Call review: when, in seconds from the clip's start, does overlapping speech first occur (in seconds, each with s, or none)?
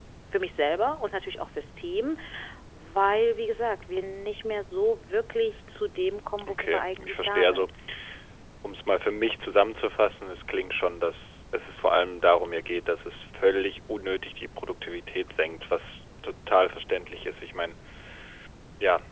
6.4 s